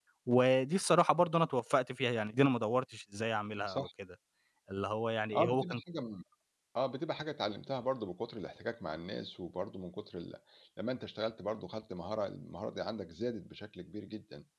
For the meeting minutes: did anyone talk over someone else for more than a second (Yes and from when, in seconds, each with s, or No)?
No